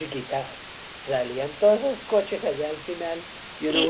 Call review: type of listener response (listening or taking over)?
taking over